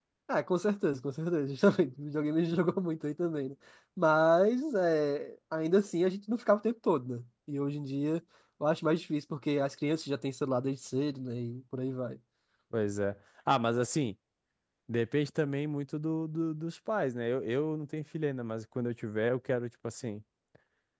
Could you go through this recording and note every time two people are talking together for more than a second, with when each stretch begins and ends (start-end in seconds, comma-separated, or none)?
none